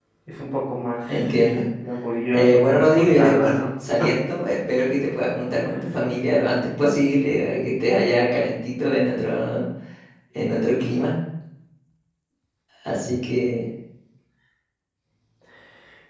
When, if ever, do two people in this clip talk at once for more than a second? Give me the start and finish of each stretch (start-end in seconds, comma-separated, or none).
2.3-3.5